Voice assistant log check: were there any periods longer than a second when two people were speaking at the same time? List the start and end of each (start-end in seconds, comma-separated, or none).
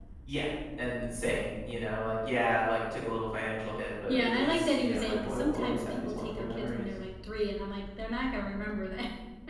4.1-6.9